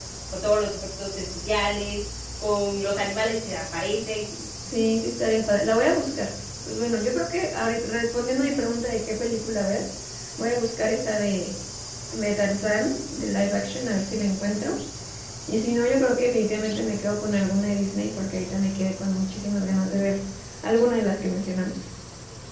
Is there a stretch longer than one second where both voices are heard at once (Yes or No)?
No